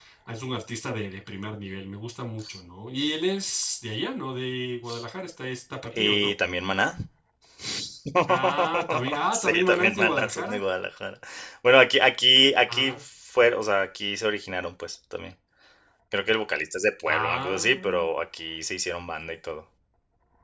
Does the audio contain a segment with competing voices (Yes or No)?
Yes